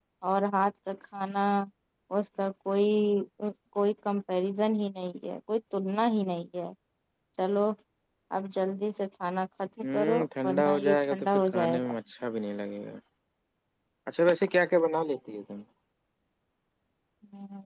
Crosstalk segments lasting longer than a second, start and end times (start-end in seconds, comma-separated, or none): 9.8-11.9